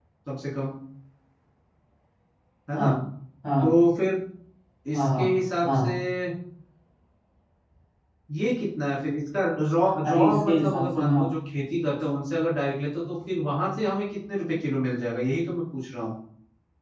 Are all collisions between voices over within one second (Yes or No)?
No